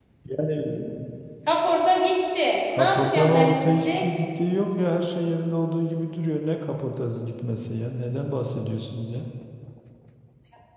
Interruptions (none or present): present